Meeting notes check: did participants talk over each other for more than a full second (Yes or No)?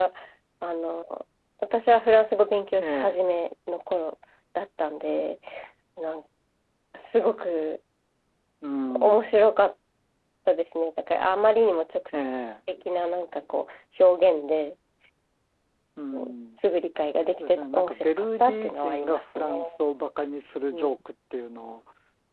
Yes